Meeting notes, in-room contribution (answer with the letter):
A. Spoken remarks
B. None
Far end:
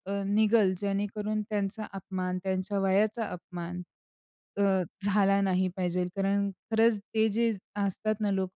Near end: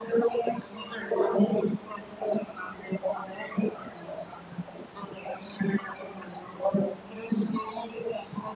B